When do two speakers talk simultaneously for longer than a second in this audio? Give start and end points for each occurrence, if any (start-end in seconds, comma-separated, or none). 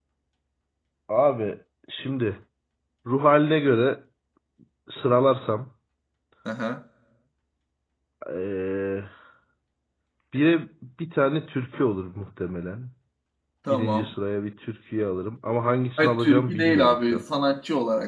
16.0-17.2